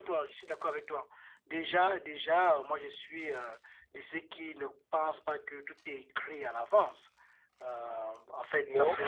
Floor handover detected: No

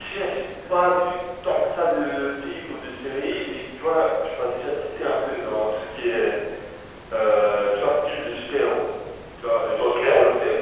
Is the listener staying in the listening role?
Yes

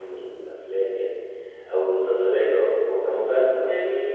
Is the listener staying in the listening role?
No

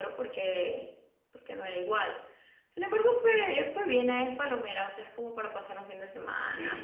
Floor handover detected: Yes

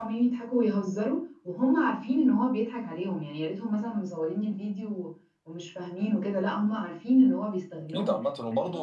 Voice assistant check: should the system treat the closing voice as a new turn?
Yes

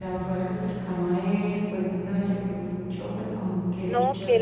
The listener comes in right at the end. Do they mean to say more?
Yes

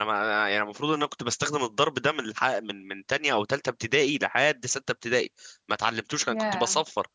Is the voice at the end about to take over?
No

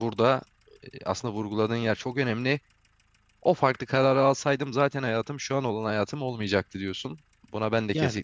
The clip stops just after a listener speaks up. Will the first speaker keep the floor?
Yes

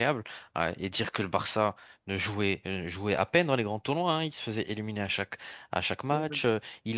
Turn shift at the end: No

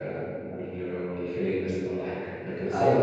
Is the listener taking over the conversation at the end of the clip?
No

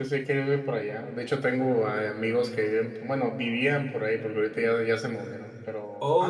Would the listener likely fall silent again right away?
No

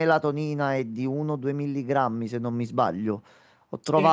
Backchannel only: Yes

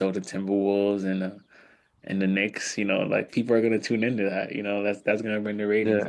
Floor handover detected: Yes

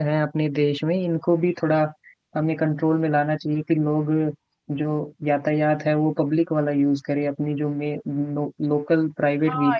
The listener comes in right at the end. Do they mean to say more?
Yes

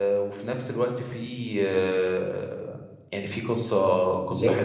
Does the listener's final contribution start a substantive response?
Yes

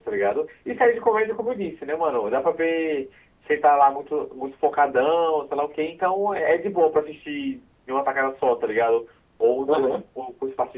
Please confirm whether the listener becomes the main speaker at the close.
No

